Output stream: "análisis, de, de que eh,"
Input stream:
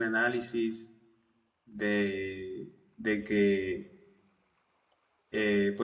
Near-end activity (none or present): none